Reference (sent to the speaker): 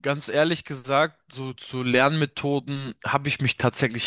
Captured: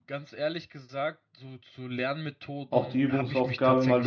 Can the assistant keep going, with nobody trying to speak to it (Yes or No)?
No